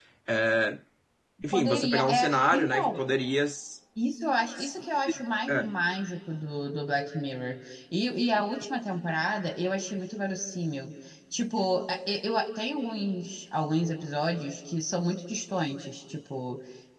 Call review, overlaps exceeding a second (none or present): present